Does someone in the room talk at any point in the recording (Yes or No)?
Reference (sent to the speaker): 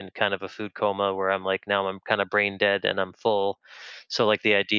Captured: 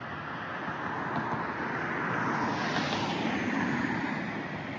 No